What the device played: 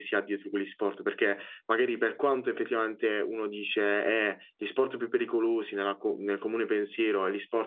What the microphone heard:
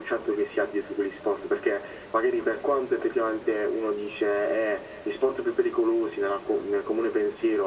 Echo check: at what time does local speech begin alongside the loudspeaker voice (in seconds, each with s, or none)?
none